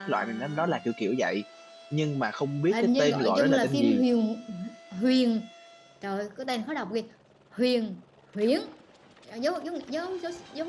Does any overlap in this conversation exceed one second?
Yes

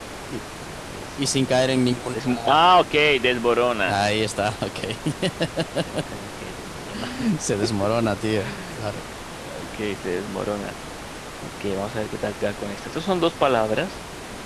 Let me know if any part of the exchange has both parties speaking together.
Yes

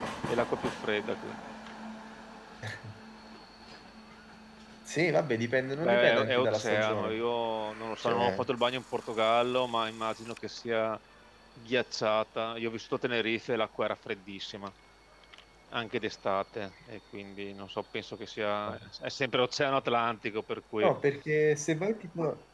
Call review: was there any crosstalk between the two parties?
Yes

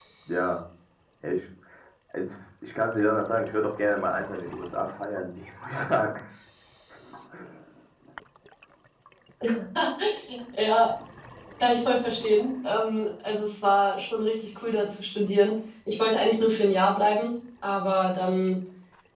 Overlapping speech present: No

